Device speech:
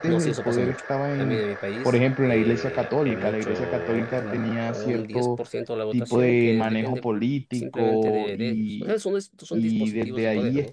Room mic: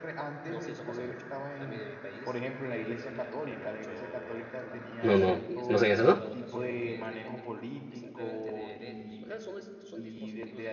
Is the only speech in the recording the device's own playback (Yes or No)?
No